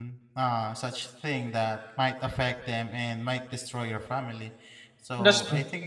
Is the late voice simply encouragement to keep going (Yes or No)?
Yes